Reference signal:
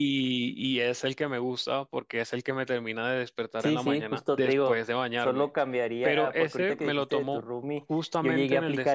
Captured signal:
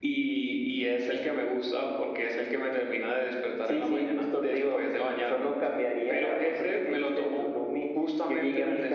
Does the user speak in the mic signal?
No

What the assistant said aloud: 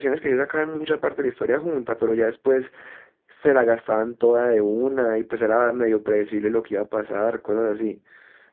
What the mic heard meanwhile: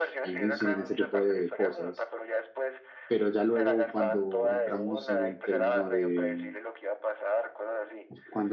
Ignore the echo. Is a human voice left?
Yes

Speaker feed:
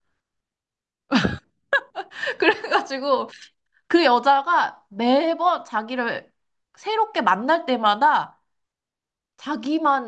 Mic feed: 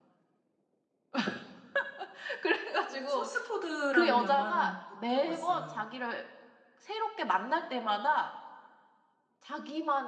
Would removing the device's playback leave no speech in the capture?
No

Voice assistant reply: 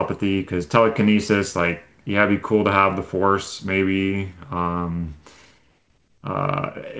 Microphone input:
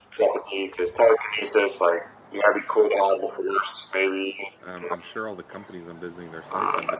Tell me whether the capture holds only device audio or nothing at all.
No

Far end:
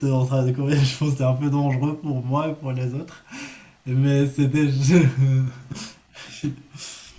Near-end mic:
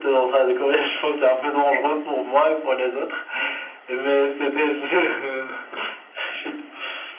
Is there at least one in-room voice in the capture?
No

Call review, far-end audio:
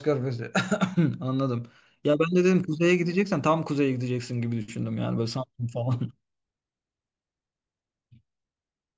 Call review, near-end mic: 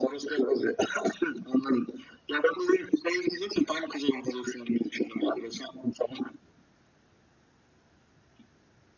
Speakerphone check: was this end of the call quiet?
Yes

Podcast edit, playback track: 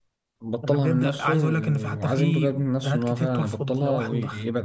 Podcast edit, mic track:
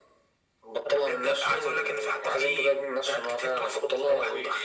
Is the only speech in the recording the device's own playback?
Yes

